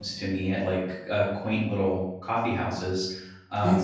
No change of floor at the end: No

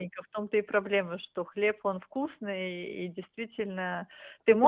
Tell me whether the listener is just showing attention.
Yes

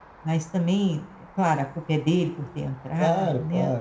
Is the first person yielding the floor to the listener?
Yes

